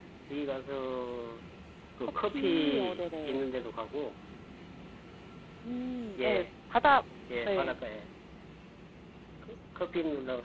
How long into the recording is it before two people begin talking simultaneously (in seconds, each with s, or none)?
2.0 s